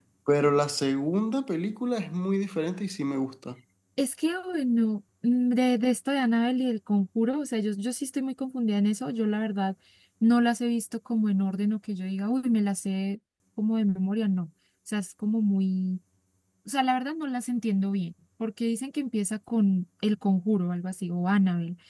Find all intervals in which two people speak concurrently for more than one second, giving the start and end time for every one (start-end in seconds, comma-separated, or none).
none